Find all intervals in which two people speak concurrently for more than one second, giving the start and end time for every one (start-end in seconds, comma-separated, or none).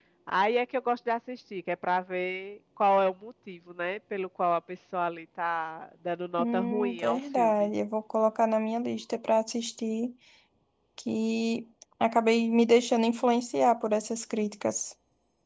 6.4-7.7